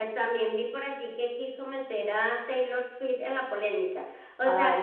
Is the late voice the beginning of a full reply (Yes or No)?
No